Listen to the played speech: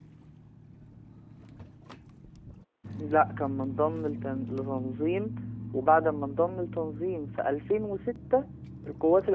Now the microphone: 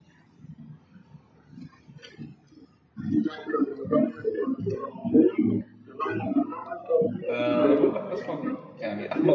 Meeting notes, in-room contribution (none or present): present